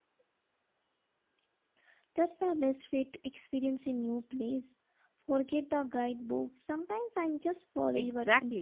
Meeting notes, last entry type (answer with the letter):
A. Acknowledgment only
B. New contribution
B